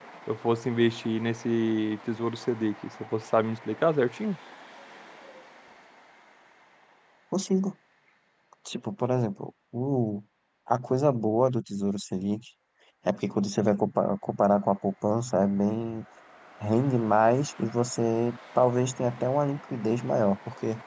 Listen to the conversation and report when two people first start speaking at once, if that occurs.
none

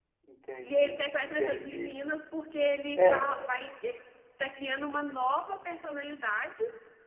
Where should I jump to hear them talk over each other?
1 s

